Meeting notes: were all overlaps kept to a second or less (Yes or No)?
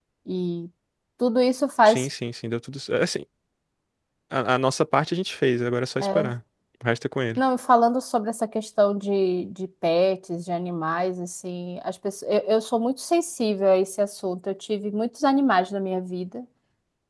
Yes